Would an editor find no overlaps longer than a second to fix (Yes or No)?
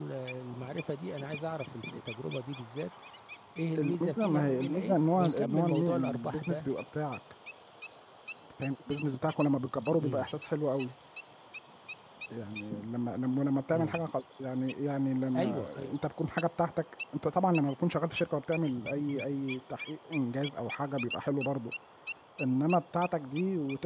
No